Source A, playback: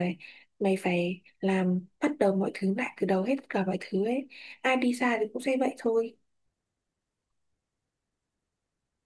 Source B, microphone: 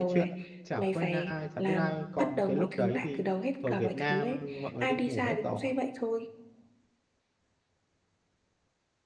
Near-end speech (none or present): present